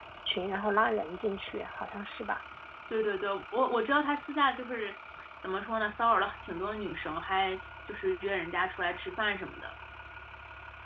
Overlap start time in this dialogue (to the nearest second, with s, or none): none